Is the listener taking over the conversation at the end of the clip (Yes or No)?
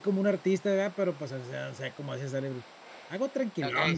Yes